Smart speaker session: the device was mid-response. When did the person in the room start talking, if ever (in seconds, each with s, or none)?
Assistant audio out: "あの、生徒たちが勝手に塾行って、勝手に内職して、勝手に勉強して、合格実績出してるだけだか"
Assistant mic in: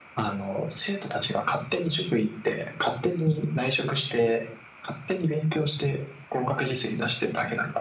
none